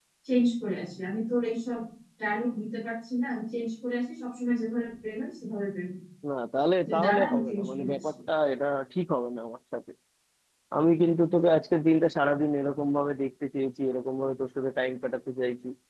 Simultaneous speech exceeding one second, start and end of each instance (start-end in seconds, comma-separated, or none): 6.9-8.1